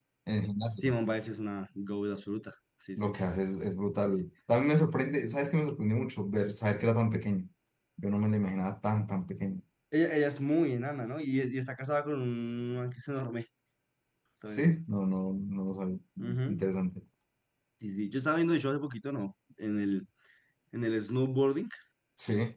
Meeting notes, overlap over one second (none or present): none